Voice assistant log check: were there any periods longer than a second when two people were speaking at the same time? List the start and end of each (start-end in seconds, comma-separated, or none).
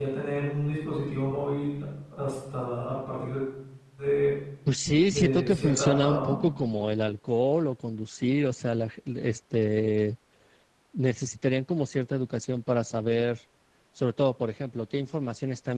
5.1-6.3